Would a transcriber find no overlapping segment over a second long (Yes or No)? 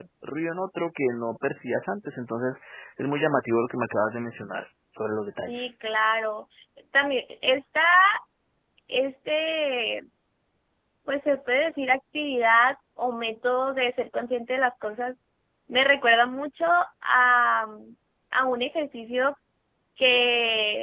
Yes